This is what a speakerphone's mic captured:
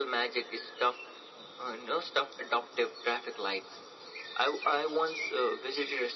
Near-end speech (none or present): none